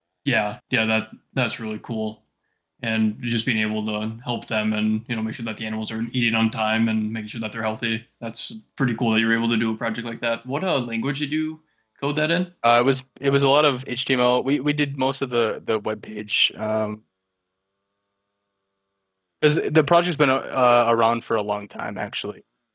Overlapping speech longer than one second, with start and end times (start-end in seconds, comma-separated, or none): none